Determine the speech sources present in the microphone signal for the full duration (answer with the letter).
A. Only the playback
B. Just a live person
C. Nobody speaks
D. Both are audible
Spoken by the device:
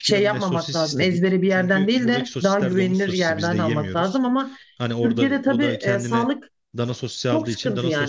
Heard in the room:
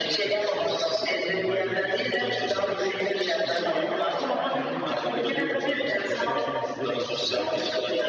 D